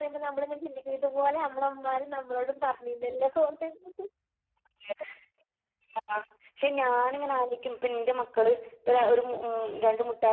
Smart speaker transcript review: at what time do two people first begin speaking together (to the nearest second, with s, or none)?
none